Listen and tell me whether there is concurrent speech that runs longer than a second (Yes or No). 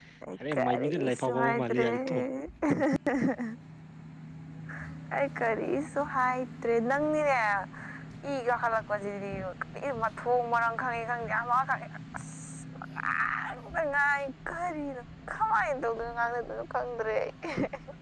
Yes